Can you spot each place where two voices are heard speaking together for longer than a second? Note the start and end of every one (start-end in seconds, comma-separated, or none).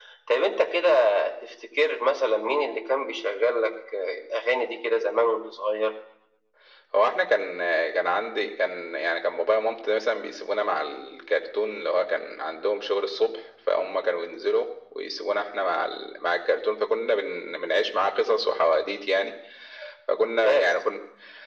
none